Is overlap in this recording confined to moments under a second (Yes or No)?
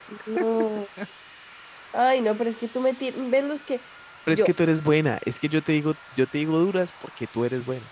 Yes